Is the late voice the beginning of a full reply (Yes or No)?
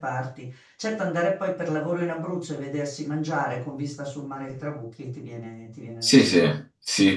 Yes